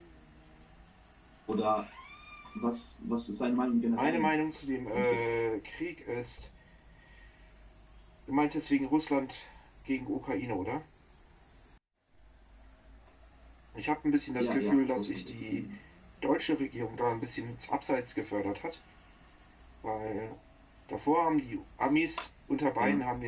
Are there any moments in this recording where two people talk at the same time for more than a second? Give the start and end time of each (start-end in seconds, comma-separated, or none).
14.4-15.6